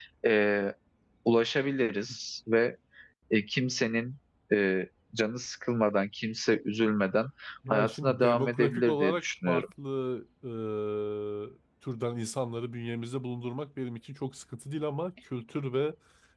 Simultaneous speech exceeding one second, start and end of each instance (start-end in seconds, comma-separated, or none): 7.7-9.6